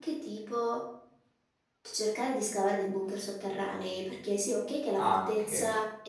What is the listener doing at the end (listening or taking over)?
listening